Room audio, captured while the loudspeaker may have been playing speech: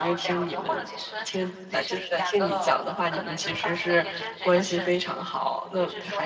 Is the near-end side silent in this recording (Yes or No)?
No